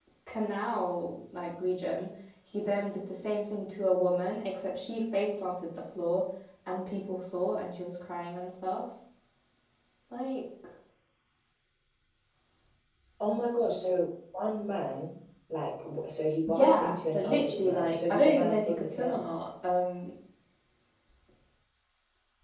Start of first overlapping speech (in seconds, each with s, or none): 16.5 s